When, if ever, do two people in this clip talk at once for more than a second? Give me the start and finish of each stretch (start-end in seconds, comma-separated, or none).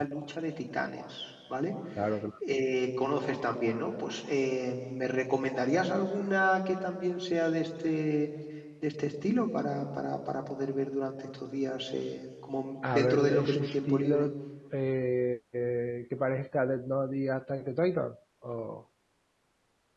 12.9-14.3